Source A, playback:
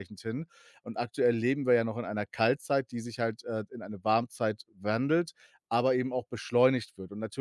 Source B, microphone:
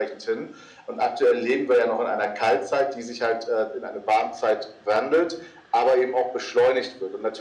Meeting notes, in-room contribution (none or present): none